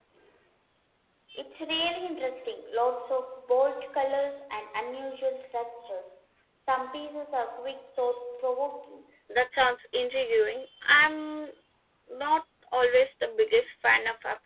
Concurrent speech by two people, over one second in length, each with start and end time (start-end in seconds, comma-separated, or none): none